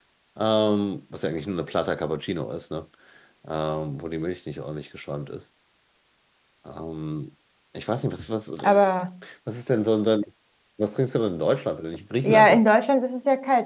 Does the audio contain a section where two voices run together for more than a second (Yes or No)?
No